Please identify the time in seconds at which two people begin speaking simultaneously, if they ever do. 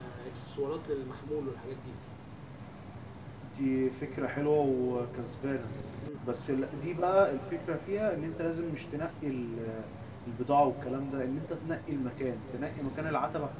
none

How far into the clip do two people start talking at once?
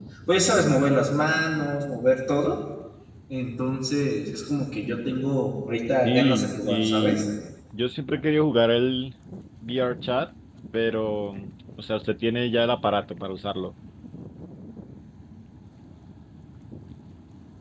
6 s

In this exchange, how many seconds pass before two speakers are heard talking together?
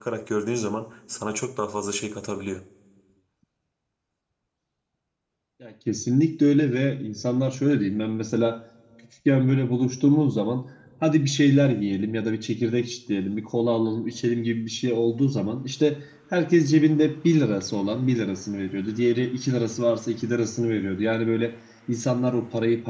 none

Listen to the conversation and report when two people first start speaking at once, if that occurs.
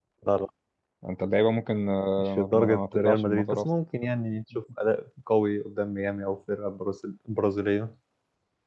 2 s

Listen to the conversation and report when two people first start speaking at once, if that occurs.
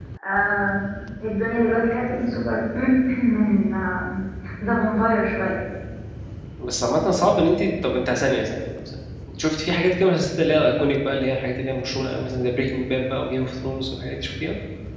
none

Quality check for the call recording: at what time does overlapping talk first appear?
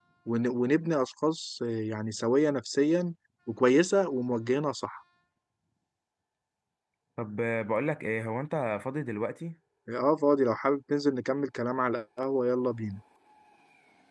none

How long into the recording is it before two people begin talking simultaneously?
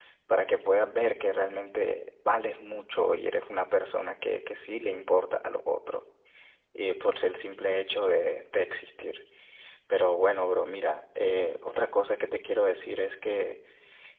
none

